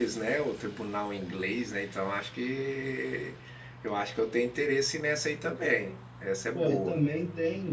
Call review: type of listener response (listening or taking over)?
taking over